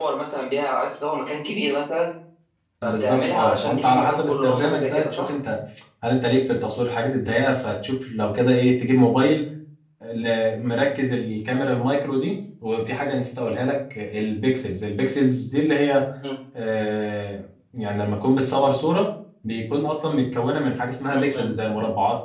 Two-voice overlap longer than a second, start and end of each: 2.8-5.3

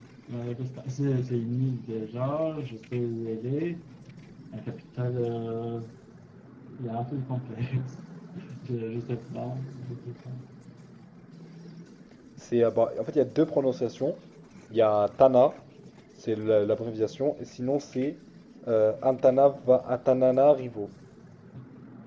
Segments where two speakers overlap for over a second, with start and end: none

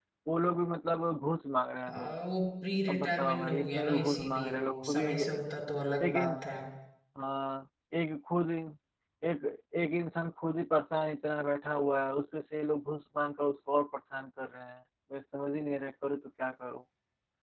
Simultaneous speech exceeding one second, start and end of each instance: 2.9-5.4

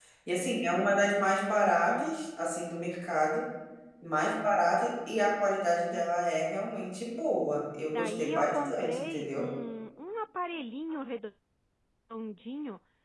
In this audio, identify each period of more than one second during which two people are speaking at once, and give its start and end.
7.9-9.5

